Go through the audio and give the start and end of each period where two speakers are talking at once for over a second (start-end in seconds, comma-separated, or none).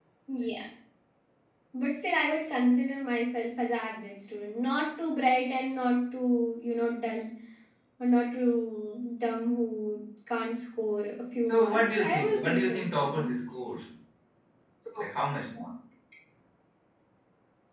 11.5-13.4